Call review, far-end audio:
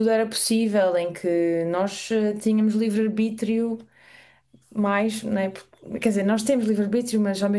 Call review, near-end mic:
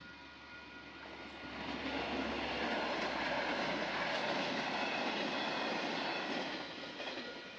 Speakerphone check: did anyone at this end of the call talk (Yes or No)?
No